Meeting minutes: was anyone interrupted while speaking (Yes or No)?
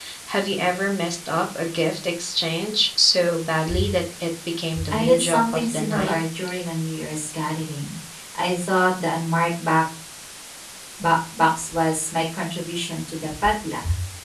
Yes